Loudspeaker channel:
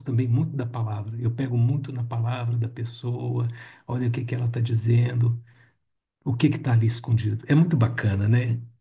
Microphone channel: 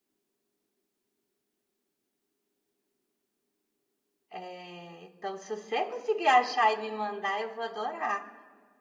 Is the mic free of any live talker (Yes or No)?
No